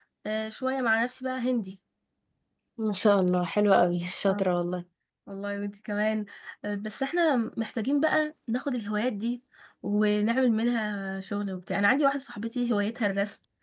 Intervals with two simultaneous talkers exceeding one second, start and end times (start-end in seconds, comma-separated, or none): none